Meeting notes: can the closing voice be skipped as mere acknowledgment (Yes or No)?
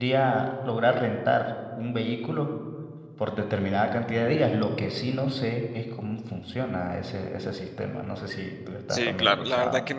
No